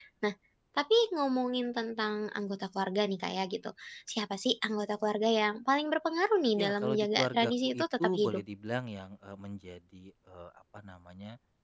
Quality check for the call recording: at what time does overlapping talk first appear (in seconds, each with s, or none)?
6.6 s